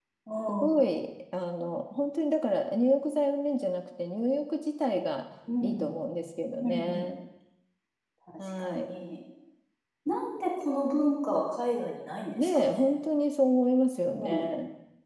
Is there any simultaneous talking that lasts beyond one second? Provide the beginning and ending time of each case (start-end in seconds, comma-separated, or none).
none